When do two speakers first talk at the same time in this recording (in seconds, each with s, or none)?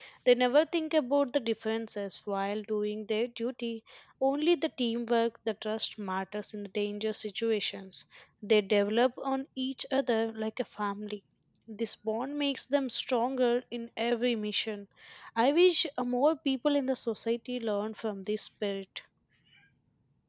none